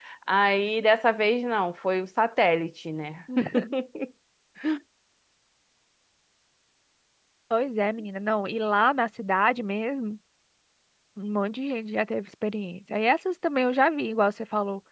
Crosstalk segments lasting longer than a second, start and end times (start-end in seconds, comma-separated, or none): none